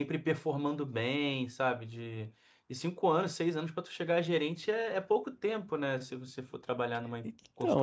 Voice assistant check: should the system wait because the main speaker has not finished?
No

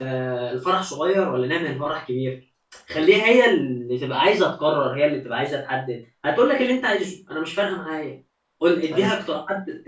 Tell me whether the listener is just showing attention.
Yes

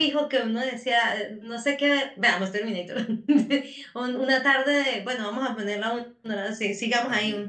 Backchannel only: No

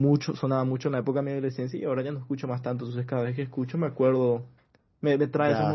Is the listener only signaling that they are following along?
Yes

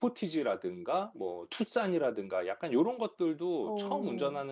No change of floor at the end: Yes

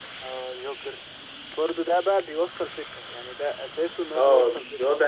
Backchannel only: No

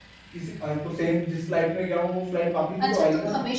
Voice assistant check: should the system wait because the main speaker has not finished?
No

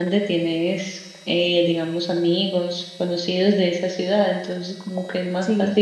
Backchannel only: Yes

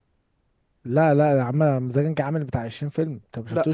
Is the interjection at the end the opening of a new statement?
No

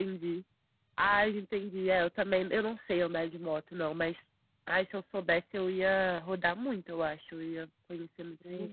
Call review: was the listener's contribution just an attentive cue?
No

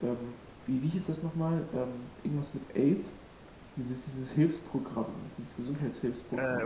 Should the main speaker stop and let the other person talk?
Yes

